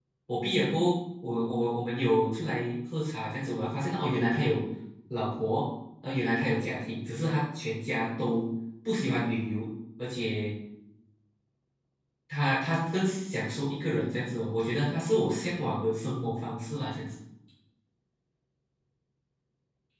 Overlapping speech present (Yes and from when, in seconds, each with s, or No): No